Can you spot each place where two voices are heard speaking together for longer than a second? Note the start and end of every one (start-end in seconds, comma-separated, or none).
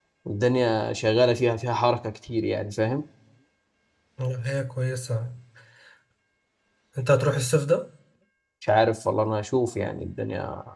none